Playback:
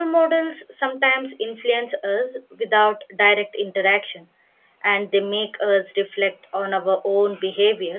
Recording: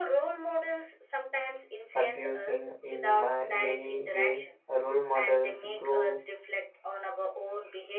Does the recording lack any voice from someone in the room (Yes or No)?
No